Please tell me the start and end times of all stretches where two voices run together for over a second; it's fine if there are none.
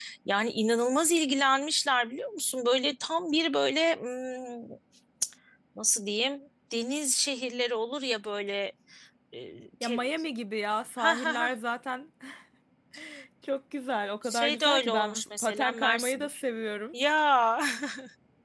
14.2-16.3

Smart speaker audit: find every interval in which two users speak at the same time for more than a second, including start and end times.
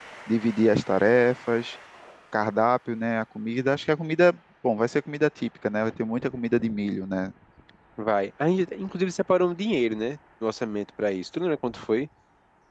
none

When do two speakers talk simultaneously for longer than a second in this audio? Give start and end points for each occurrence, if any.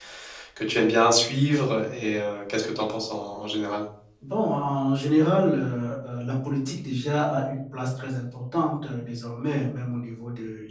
none

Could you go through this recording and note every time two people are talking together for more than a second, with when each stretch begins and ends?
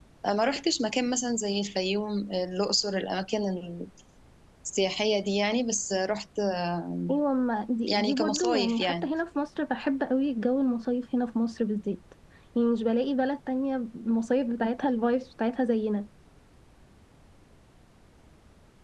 7.9-9.1

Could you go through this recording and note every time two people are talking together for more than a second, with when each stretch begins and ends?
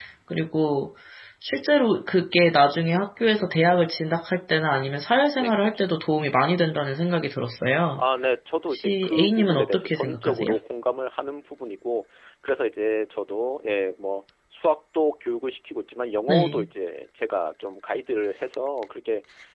8.7-10.6

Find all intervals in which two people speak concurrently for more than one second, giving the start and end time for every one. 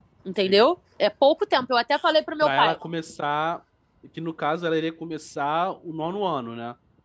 none

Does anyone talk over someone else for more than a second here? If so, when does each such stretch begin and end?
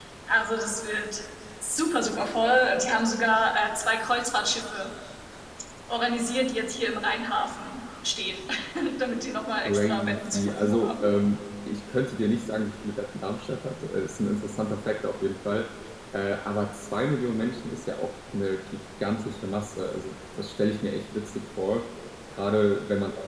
9.6-11.0

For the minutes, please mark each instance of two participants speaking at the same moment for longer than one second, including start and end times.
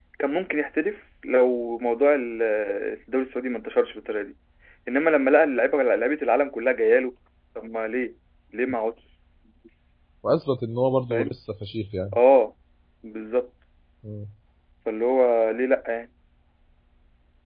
none

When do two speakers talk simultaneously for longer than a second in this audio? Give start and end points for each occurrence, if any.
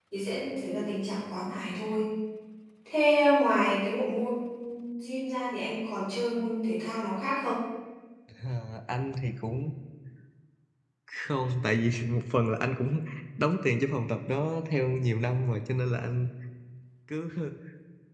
none

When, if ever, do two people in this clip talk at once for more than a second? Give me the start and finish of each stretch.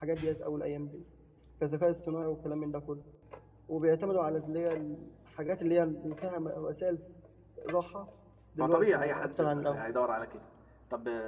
8.6-9.8

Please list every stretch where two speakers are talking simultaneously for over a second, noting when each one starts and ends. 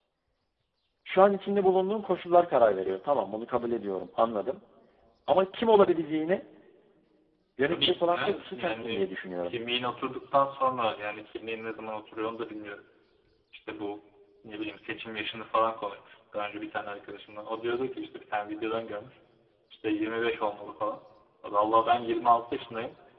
7.6-9.1

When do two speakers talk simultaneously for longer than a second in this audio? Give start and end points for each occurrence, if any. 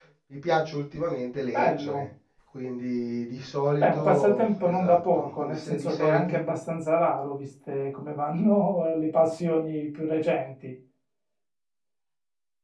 3.8-6.4

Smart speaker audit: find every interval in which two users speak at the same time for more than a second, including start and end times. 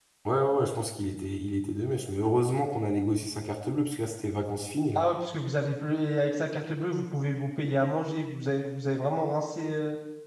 none

